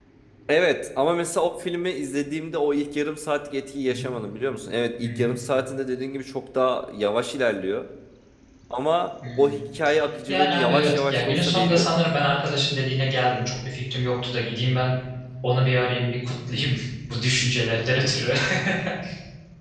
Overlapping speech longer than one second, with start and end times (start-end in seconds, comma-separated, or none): 10.3-11.9